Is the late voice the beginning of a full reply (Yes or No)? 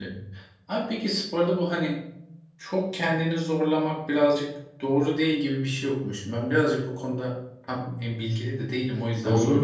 Yes